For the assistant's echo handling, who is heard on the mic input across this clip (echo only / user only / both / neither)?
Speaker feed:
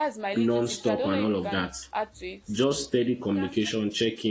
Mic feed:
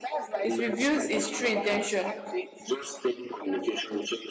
both